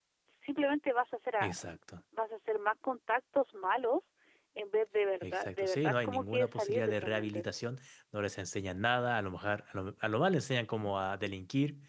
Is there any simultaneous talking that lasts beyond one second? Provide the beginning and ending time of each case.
5.2-7.5

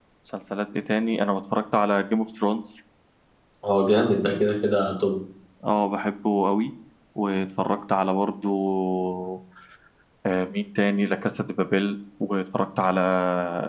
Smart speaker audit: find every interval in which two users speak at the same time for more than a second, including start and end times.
none

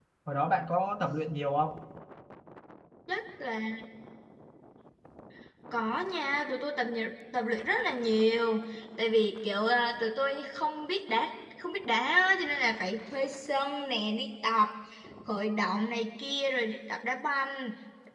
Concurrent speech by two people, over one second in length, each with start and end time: none

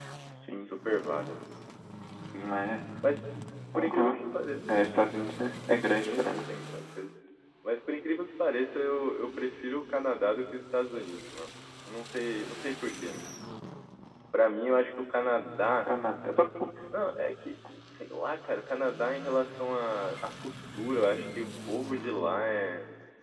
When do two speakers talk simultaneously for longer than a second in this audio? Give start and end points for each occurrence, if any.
none

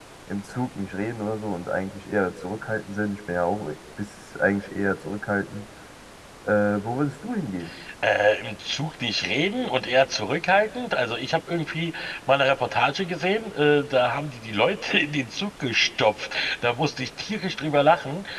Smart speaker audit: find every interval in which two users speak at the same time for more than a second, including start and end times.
none

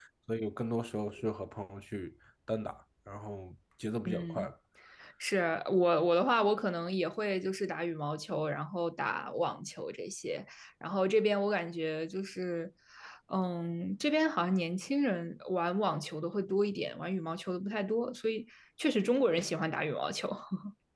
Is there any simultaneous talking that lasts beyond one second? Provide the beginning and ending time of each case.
none

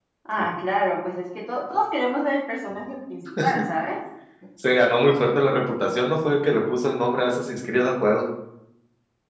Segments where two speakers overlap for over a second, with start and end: none

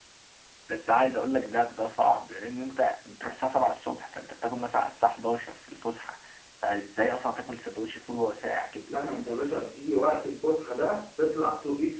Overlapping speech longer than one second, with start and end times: none

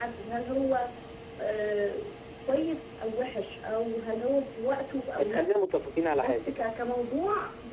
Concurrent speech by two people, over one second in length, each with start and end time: none

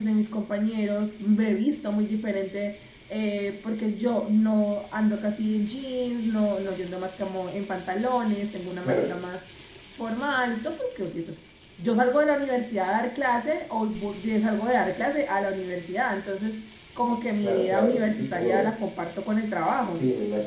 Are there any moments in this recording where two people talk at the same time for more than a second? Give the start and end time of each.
17.4-18.8

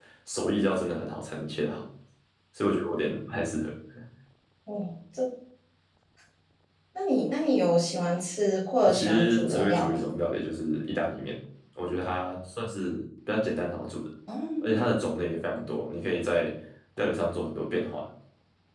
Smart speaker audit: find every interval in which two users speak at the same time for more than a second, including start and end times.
8.8-10.3

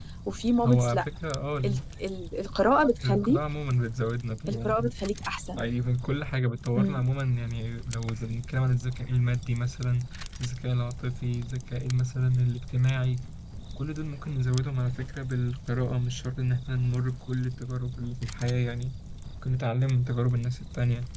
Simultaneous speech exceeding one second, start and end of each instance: none

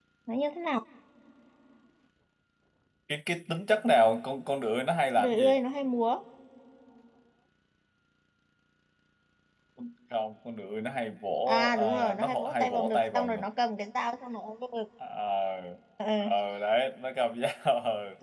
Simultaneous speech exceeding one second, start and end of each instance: 11.5-13.4

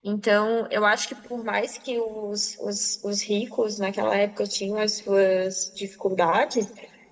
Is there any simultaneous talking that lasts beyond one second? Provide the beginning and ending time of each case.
none

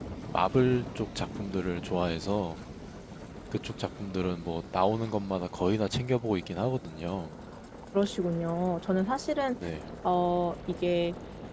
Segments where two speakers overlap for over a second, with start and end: none

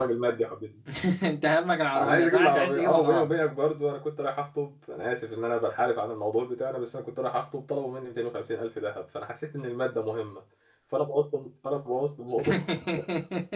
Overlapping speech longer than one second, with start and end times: 2.0-3.3

